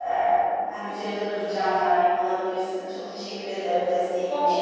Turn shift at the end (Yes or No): Yes